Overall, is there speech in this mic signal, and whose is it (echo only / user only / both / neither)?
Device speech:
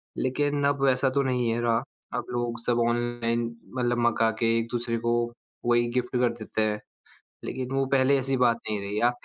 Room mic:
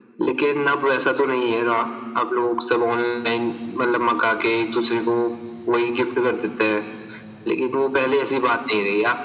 echo only